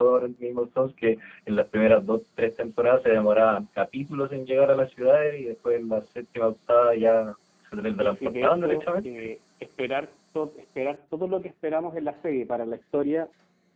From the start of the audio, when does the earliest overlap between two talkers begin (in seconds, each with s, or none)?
8.0 s